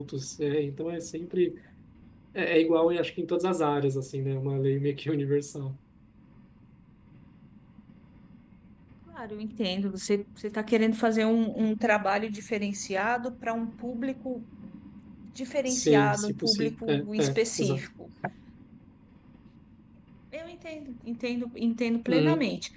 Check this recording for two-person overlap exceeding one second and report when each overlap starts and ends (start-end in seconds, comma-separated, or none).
15.7-17.8